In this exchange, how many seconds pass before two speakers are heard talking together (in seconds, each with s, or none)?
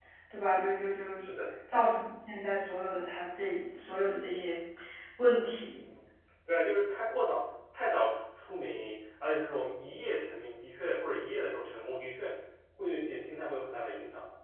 none